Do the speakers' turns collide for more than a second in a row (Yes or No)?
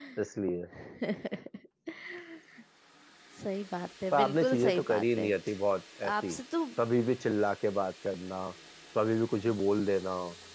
Yes